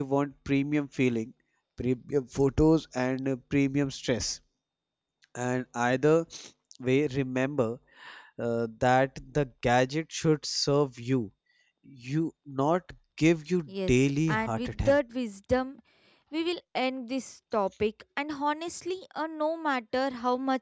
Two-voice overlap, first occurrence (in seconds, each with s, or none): 13.7 s